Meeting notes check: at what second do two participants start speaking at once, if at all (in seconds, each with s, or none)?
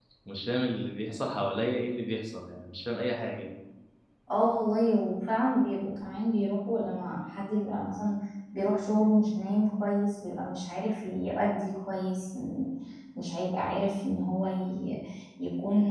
none